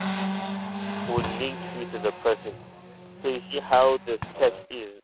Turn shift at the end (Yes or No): No